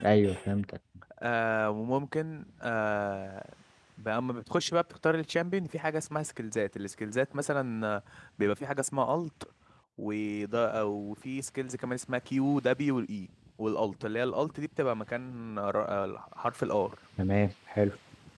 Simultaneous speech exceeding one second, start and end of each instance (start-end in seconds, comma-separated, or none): none